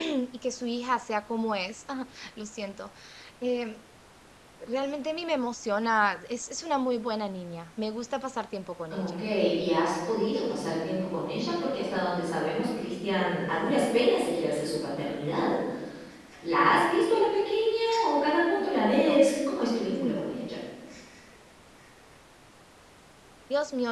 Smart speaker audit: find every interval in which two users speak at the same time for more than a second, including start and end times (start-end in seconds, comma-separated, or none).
none